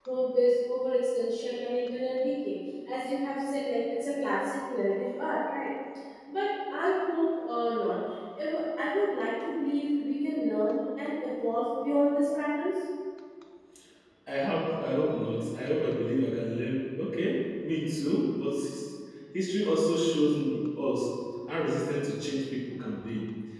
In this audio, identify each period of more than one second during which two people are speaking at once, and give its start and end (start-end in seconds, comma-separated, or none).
none